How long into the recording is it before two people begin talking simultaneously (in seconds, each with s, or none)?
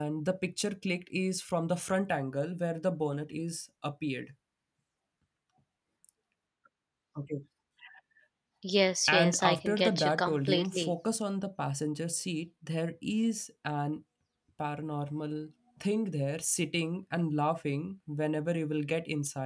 9.1 s